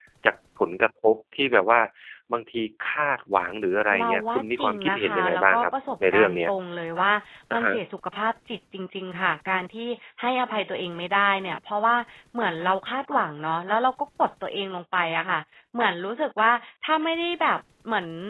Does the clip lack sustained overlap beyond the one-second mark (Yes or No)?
No